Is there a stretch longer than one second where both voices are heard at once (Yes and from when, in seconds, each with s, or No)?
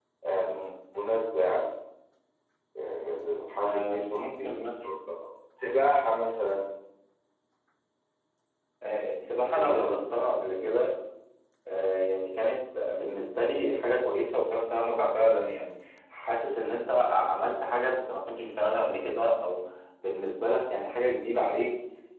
Yes, from 3.6 s